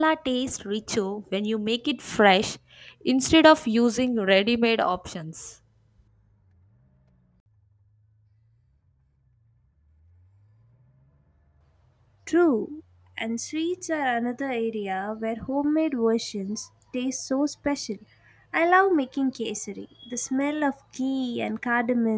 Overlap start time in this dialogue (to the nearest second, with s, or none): none